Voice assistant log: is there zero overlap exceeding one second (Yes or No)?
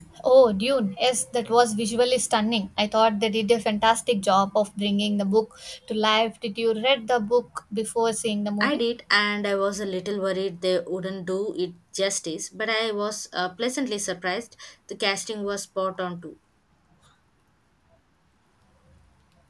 Yes